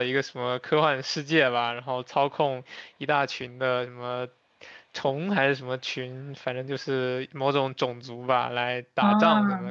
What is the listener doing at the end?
listening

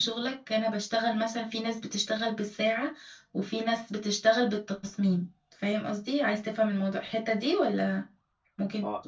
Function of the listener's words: taking over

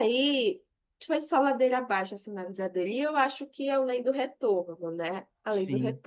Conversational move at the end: taking over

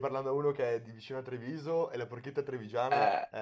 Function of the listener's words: taking over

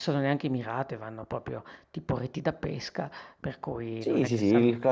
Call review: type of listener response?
taking over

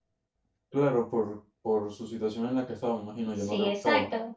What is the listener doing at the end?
taking over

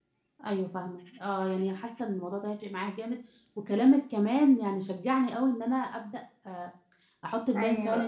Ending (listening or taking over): listening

